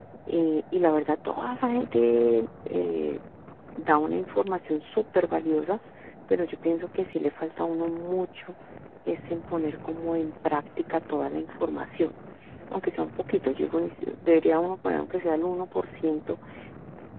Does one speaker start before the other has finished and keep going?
No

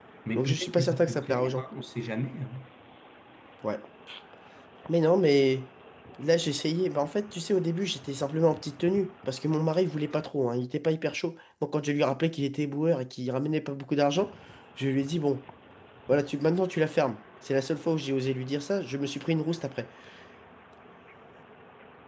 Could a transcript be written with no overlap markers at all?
No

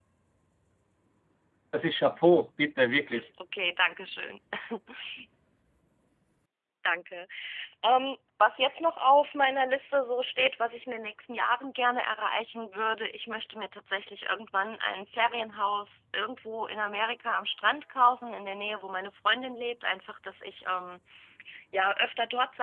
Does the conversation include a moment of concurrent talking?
No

